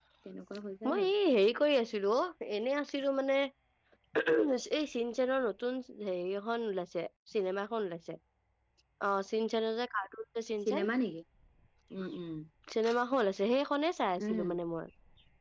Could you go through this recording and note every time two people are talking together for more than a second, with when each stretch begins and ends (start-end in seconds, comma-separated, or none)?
none